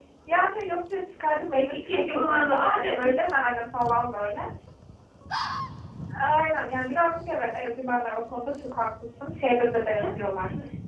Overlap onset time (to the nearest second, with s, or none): 2 s